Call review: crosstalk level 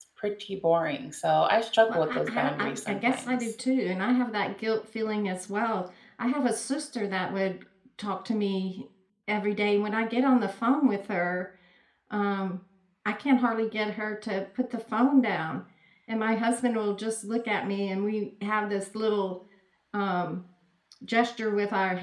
present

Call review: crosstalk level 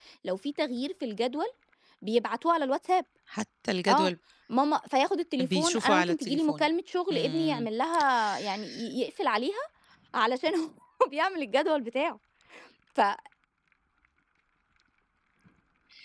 present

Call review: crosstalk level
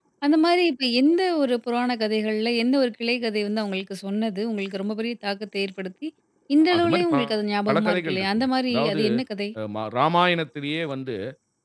present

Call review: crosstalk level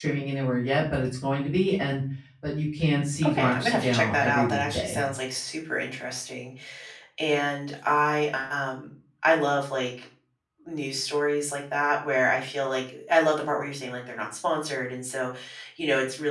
present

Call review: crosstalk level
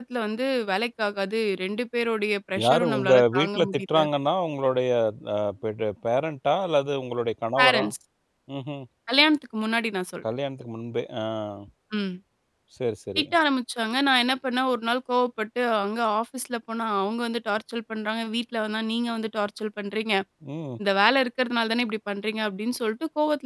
present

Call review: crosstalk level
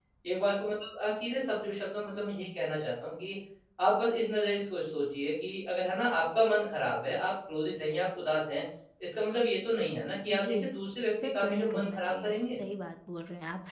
present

